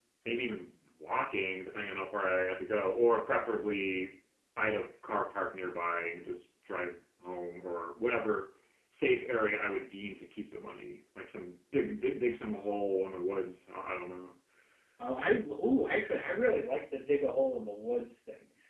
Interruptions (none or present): none